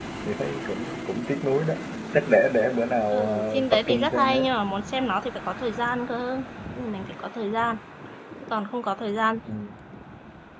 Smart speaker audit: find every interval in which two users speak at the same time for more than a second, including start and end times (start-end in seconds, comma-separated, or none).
3.1-4.5